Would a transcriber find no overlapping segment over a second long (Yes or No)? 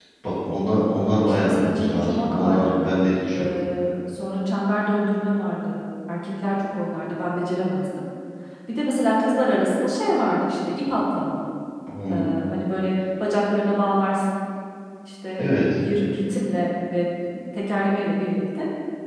No